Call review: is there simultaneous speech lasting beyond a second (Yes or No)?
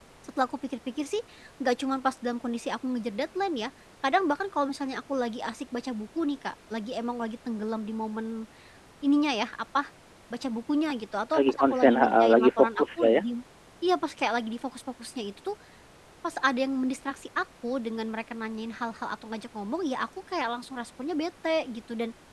Yes